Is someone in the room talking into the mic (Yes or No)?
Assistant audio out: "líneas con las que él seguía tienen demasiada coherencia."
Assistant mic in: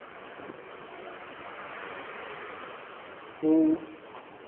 Yes